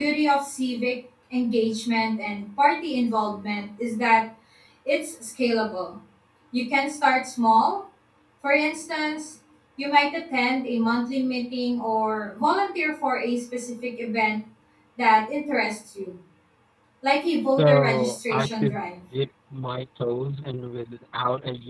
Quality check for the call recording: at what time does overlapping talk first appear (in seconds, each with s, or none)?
17.4 s